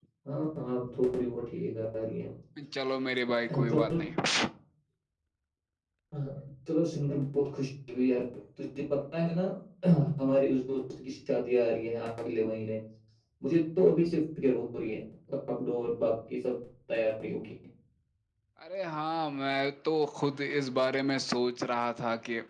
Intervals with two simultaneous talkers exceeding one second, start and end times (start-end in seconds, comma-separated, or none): none